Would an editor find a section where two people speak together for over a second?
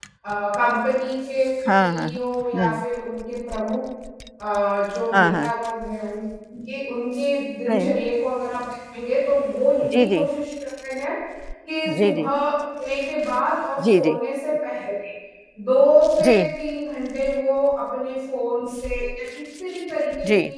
No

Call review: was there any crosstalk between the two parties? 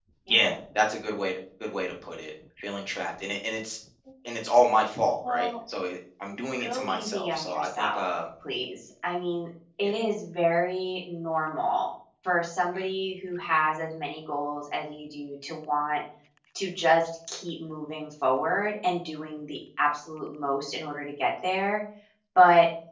Yes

